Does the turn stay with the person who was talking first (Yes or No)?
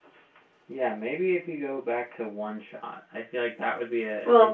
Yes